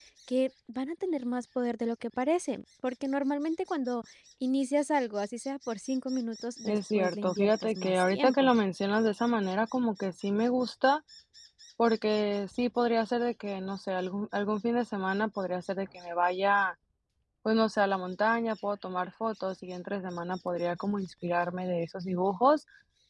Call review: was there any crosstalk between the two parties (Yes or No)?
Yes